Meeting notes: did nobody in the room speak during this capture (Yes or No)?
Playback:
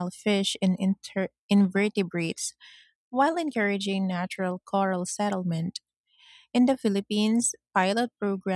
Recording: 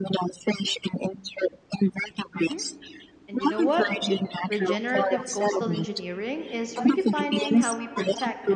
No